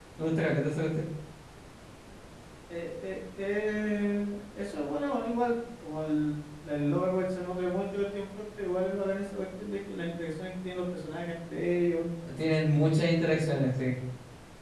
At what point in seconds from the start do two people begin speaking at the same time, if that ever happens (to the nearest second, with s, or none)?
none